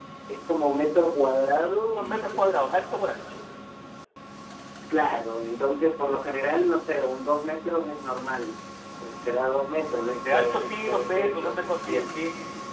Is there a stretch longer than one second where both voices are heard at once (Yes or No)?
Yes